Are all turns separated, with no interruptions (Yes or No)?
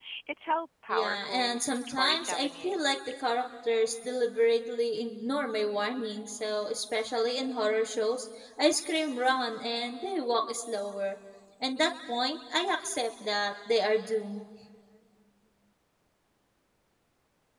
No